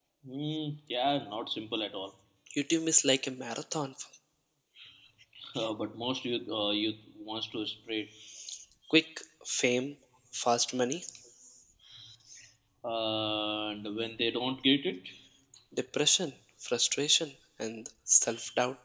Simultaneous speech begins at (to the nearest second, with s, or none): none